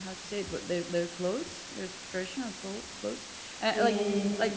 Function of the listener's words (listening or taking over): listening